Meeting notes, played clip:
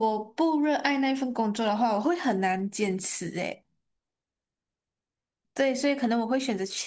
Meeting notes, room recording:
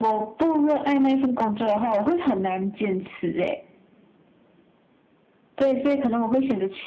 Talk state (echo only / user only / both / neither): echo only